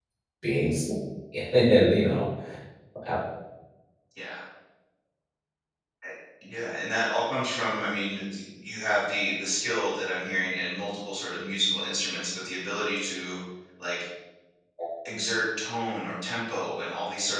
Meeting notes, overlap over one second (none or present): none